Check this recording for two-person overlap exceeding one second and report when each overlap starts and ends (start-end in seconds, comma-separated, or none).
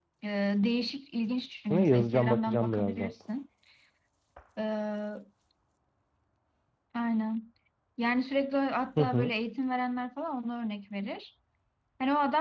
1.7-3.1